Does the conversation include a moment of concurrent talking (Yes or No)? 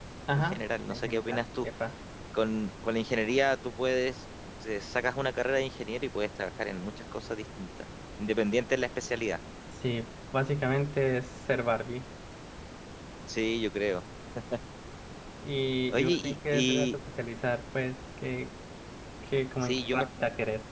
Yes